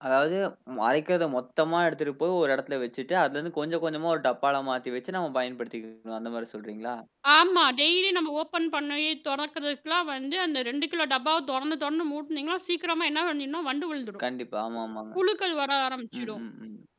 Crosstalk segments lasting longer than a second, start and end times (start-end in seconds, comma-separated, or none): none